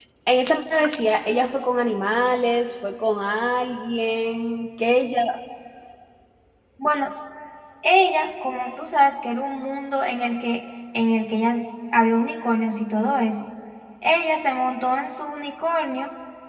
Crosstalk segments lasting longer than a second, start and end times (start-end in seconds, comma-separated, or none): none